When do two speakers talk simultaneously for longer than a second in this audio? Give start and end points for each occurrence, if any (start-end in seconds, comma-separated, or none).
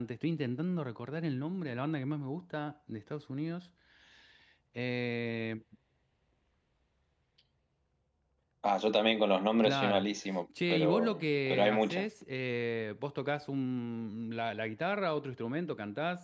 10.7-12.1